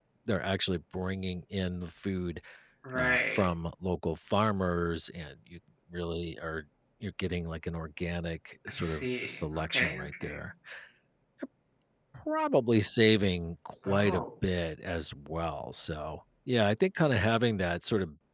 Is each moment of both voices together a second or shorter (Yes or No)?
No